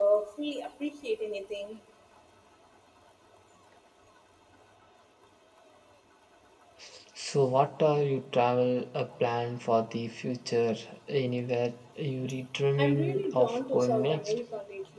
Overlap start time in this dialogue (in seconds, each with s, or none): 12.8 s